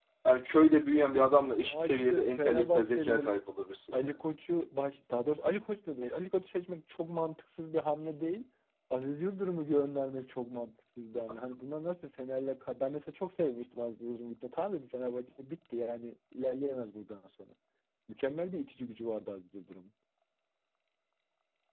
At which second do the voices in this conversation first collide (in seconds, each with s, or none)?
1.6 s